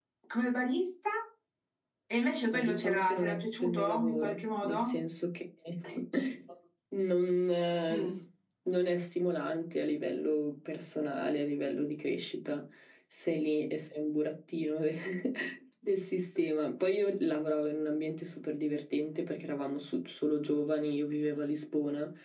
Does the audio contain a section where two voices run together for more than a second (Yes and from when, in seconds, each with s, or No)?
Yes, from 2.5 s